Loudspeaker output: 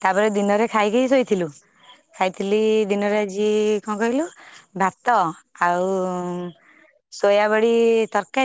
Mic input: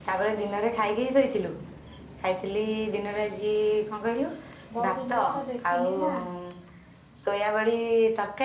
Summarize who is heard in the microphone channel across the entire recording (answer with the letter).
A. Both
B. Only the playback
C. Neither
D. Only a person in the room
A